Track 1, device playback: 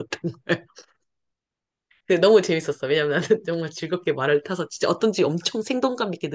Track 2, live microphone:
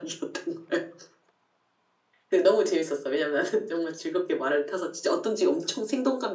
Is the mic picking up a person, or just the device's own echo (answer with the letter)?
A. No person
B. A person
A